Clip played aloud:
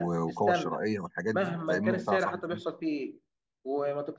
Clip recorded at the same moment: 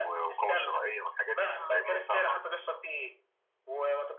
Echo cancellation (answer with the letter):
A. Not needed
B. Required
B